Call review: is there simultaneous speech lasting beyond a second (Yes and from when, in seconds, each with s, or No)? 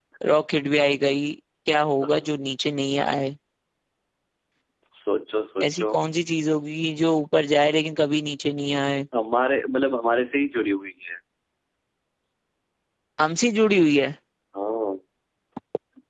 No